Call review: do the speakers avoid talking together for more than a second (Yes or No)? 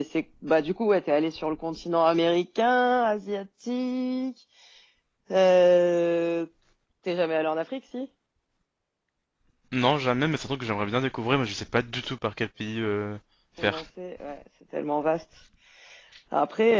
Yes